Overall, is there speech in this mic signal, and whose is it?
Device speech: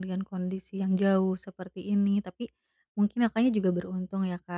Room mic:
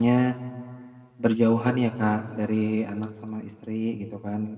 user only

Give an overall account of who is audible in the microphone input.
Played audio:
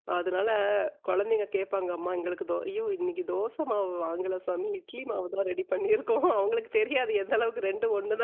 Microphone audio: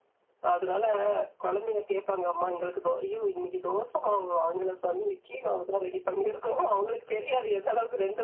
echo only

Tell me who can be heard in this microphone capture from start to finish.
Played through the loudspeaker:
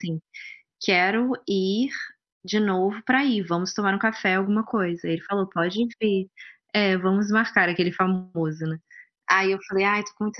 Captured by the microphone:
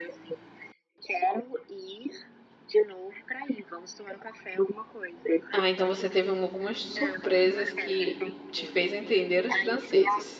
both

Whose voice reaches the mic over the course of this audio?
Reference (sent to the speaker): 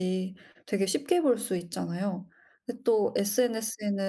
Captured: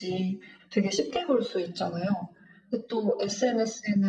echo only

